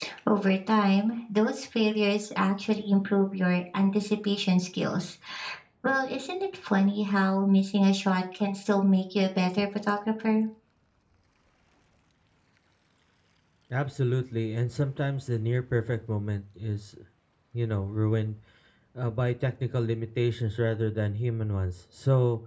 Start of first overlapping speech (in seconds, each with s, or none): none